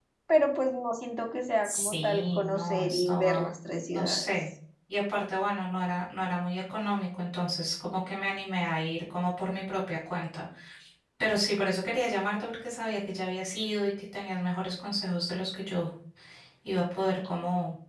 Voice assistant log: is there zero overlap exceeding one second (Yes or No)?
No